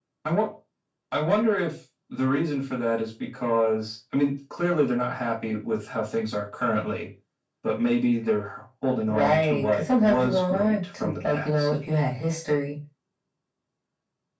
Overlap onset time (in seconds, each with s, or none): 9.1 s